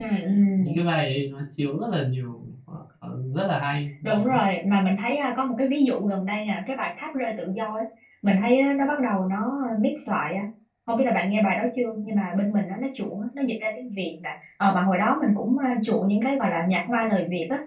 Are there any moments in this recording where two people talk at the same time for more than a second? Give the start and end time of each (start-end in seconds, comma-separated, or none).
none